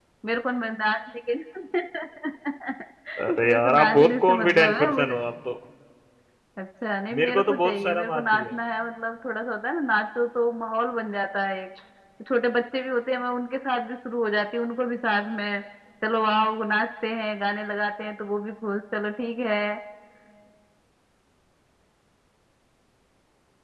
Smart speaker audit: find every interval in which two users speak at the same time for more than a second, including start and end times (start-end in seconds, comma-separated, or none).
3.5-5.2, 7.2-8.5